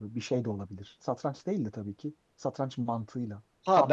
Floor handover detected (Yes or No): Yes